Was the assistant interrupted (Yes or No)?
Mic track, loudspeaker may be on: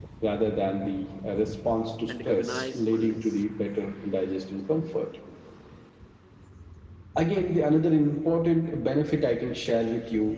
Yes